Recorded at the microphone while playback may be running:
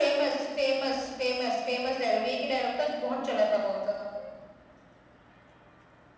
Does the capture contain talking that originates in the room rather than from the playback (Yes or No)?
No